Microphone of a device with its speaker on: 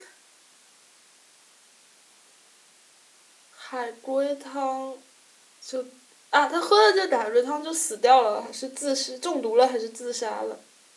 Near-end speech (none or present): present